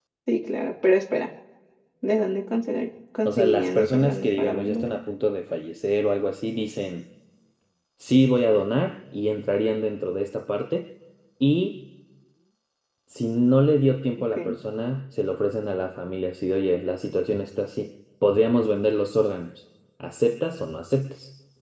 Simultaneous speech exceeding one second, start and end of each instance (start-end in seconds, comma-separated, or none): 3.2-4.8